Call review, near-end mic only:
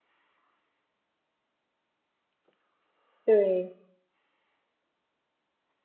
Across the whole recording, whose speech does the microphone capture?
user only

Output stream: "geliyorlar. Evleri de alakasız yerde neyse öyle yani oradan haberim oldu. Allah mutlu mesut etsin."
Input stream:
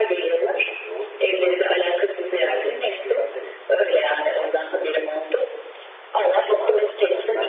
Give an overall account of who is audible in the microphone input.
both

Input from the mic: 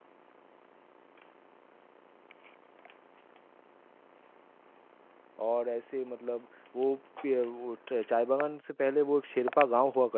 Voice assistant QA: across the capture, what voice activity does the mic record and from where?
user only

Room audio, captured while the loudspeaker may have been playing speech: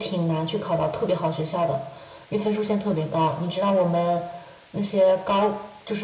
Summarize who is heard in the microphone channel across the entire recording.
echo only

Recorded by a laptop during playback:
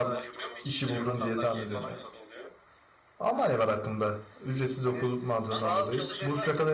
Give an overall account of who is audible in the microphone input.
both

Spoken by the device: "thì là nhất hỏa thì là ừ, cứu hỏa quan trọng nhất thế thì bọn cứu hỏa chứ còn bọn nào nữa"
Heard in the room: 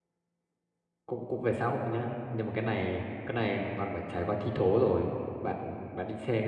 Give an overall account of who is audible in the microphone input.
user only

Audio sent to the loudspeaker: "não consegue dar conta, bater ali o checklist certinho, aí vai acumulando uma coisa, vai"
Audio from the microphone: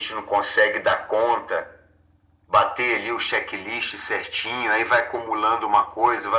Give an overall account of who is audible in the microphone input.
echo only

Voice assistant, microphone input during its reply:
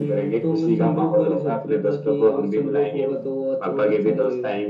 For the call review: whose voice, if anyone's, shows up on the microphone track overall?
echo only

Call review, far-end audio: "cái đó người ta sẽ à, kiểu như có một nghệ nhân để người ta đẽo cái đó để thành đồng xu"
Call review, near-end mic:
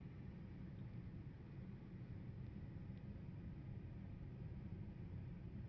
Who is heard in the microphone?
neither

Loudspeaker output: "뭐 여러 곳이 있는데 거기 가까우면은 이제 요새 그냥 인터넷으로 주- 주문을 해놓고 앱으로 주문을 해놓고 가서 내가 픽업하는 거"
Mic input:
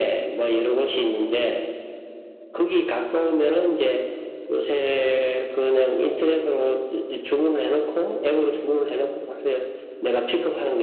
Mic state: echo only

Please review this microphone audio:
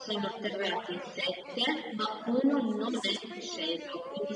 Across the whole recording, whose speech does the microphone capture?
both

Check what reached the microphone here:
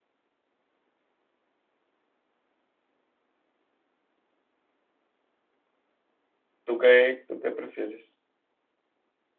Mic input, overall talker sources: user only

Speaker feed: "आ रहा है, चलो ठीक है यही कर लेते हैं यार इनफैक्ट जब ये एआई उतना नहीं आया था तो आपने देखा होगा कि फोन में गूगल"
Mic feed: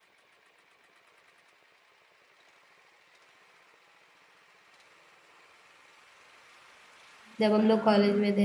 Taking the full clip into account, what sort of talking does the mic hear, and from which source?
user only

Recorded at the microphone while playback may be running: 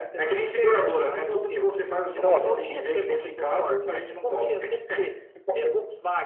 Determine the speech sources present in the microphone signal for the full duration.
both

